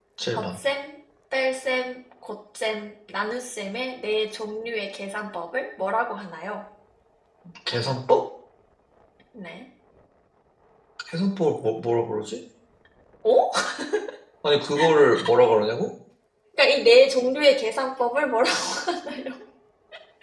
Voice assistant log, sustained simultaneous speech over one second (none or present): none